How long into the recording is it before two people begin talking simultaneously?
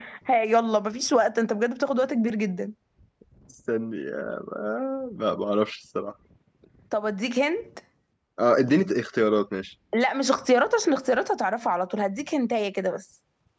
none

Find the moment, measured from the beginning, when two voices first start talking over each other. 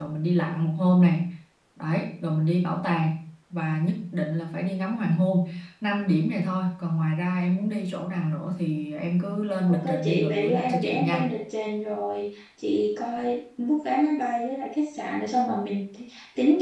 9.7 s

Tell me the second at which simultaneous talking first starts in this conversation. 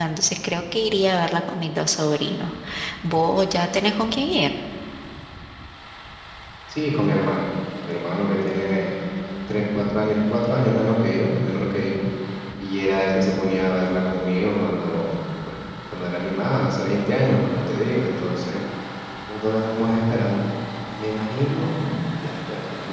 none

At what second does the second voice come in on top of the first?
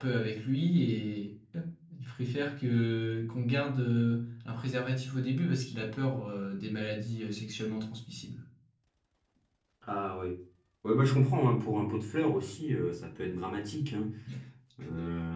none

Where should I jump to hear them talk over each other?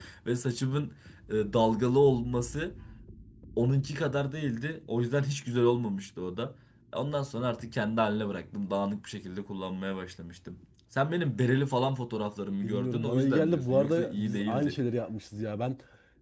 12.6 s

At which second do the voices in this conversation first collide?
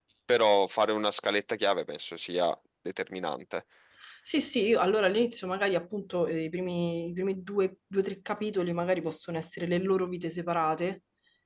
none

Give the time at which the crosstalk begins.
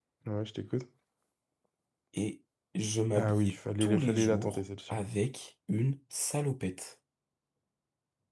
3.2 s

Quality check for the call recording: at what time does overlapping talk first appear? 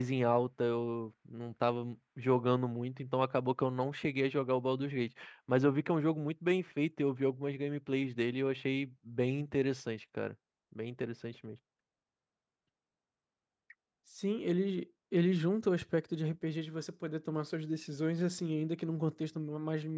none

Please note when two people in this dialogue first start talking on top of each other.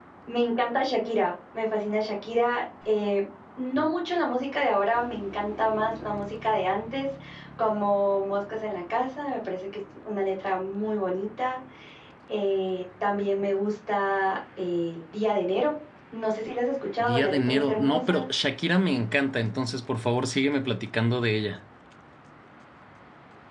17.0 s

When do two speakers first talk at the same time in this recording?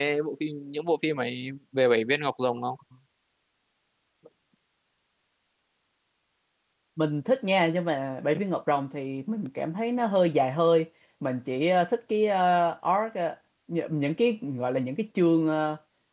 none

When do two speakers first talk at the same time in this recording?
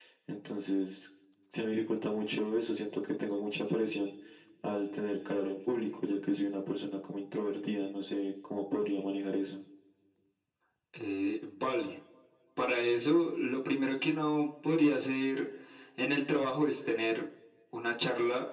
none

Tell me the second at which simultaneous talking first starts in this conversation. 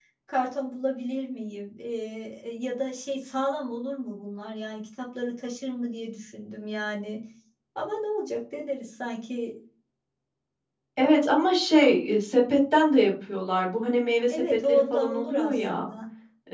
14.3 s

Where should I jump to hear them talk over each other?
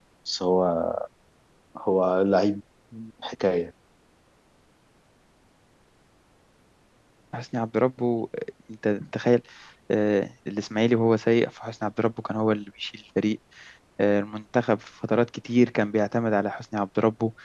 none

